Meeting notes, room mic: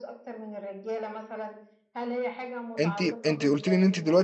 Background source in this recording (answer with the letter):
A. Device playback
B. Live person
A